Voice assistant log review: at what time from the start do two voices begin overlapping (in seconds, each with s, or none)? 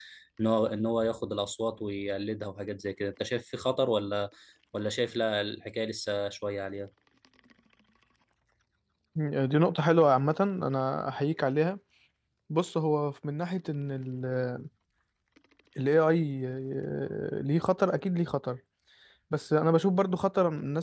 none